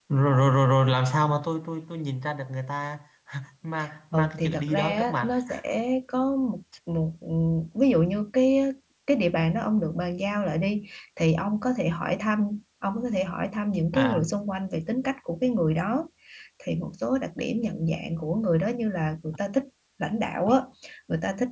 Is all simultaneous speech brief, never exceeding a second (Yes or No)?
No